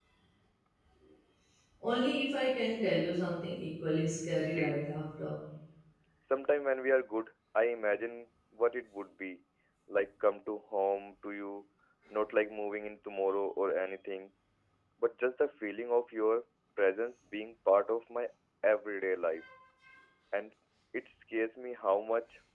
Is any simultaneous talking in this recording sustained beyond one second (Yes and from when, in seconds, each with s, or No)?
No